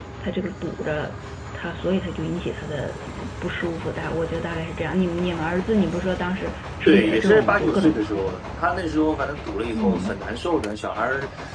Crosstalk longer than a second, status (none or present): present